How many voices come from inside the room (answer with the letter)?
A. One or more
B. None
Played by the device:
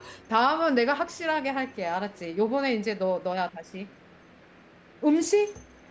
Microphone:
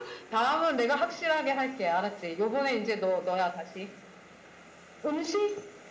B